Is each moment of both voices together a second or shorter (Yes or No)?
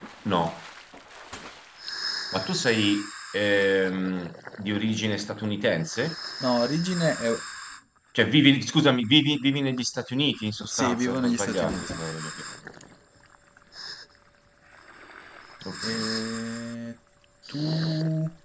No